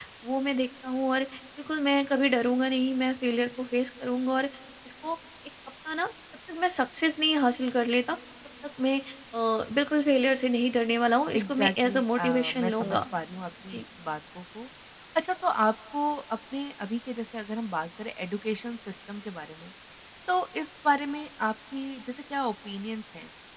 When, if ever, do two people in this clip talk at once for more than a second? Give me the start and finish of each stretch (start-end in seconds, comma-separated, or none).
11.4-13.0